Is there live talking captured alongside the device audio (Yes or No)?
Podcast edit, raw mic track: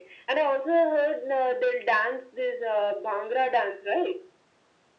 No